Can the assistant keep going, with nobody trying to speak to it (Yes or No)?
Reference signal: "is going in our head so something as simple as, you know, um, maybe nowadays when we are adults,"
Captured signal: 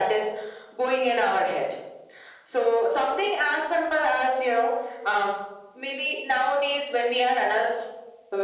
Yes